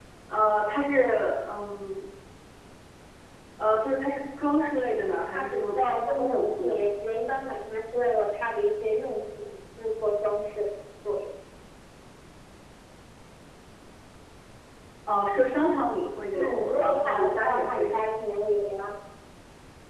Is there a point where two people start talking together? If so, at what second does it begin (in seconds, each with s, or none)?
5.3 s